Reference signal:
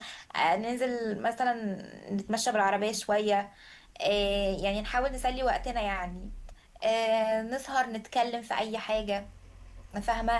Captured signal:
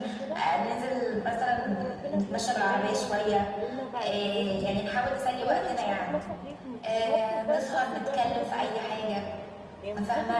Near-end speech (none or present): present